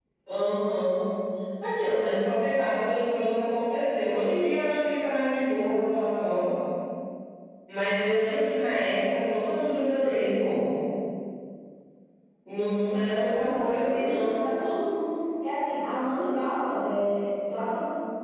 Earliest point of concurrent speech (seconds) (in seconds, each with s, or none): 12.8 s